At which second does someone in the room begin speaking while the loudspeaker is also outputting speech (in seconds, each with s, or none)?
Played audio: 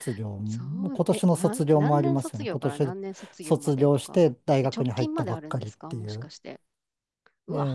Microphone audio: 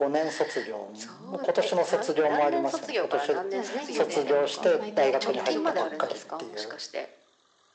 3.5 s